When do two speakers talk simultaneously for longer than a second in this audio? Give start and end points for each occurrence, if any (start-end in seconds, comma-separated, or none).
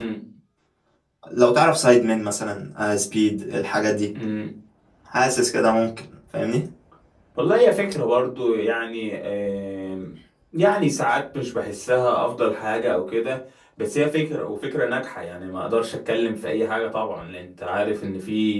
none